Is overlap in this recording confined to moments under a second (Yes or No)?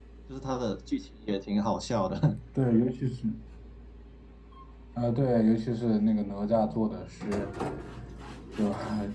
Yes